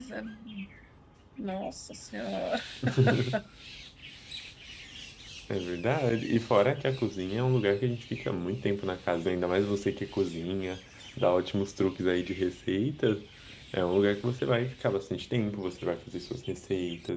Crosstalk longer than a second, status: none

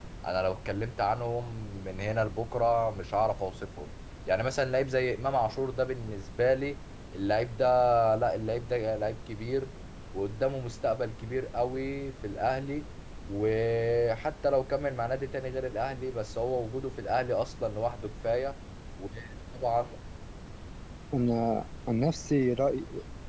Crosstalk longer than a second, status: none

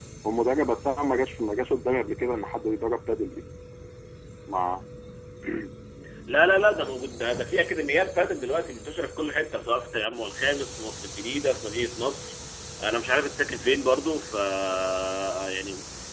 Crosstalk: none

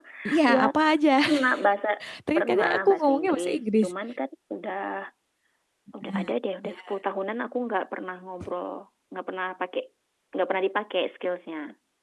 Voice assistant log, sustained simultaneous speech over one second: present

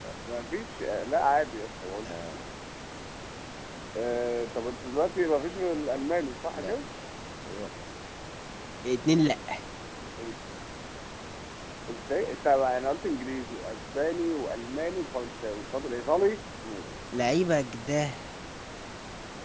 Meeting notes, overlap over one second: none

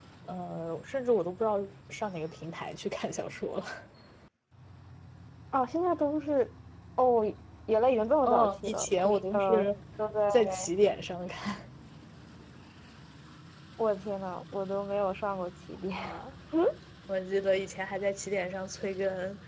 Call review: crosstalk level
present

